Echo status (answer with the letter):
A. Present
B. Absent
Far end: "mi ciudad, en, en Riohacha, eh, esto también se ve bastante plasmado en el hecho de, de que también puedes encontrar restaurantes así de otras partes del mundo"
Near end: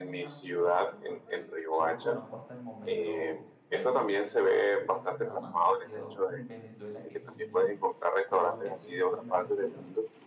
A